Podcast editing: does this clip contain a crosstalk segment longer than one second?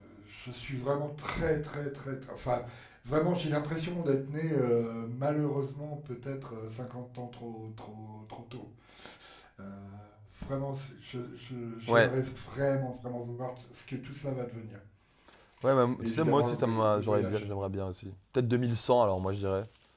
Yes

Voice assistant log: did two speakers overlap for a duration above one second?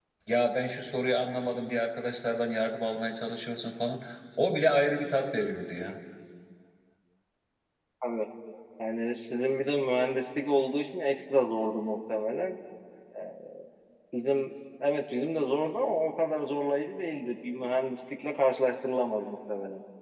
No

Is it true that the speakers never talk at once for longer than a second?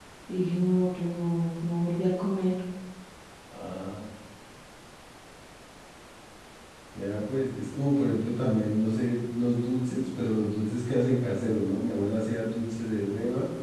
Yes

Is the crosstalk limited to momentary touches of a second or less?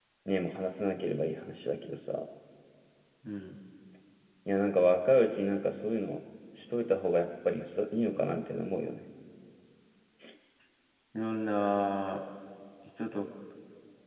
Yes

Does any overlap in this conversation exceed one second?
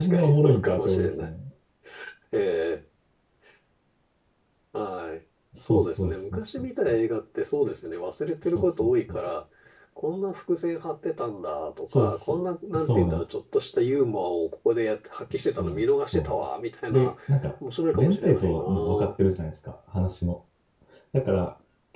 Yes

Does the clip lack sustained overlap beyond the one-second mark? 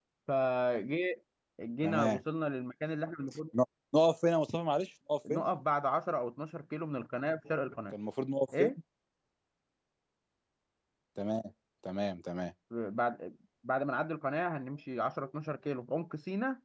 Yes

